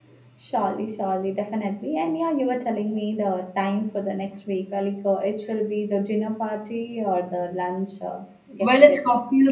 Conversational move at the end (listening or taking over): taking over